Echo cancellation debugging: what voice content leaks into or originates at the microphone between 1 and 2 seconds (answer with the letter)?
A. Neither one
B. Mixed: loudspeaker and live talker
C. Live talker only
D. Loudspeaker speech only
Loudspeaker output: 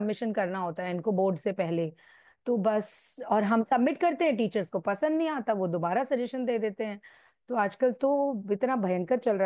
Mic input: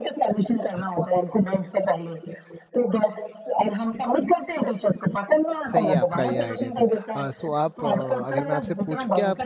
D